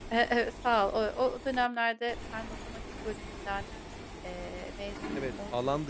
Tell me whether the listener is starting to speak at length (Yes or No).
Yes